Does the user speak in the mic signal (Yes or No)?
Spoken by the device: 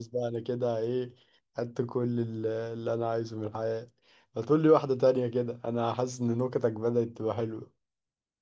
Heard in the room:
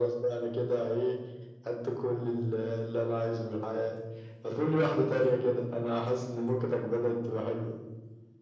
No